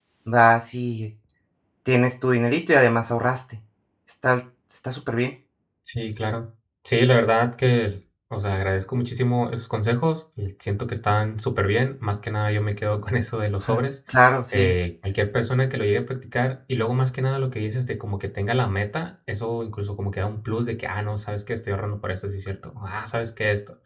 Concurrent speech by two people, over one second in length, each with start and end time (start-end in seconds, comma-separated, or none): none